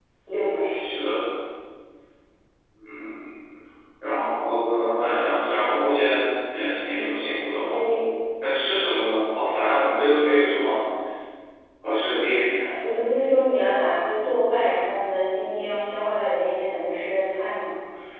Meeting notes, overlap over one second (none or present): none